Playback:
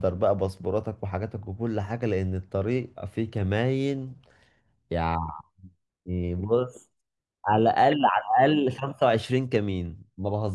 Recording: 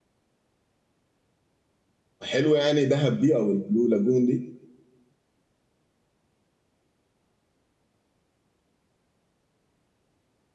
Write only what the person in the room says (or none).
حلو يعني دهب دي او البلو لاجون دي